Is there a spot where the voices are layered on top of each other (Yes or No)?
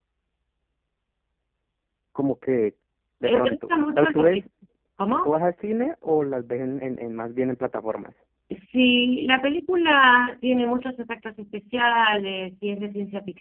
Yes